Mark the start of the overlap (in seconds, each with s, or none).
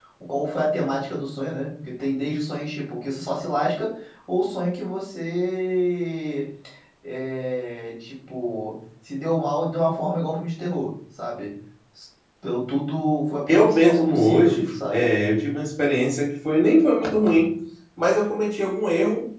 13.5 s